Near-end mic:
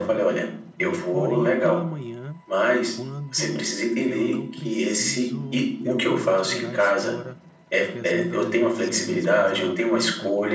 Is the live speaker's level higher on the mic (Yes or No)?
No